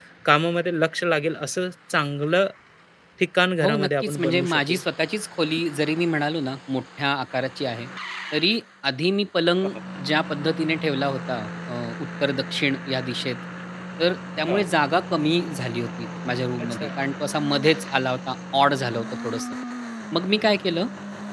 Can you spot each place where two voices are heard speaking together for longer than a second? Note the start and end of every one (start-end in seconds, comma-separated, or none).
3.6-4.8